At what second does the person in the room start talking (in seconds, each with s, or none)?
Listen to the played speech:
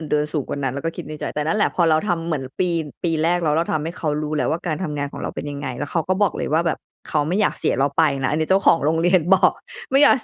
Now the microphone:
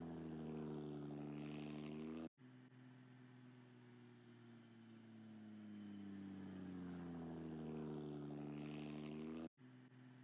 none